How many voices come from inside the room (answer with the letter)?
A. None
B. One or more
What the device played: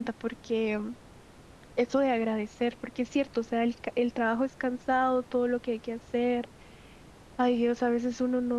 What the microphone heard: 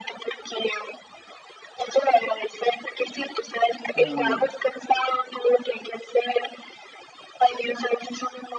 B